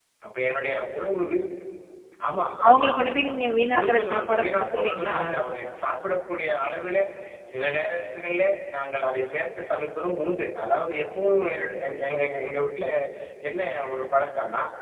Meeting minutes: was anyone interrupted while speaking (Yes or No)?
Yes